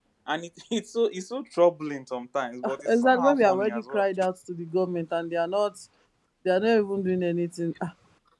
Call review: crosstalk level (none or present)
present